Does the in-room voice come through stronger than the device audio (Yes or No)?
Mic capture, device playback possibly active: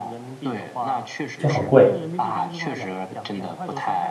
Yes